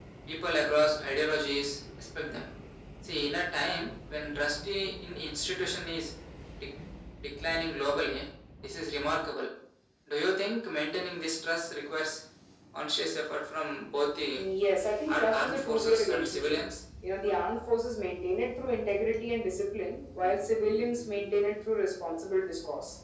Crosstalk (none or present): present